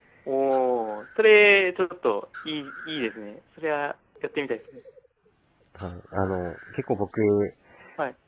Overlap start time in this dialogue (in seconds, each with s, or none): none